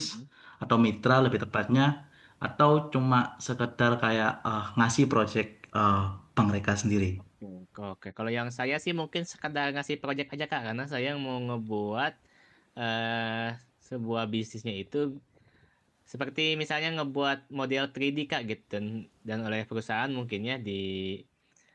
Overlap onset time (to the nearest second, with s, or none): none